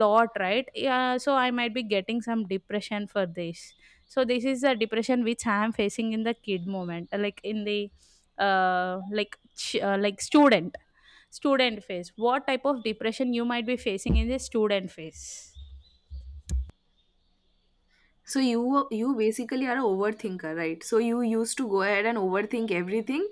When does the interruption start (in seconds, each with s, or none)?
none